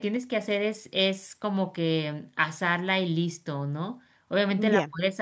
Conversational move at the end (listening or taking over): listening